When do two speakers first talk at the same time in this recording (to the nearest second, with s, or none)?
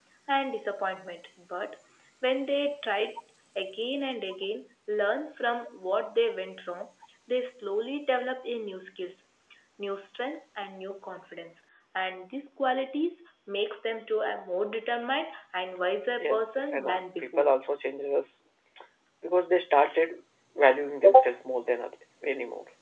16 s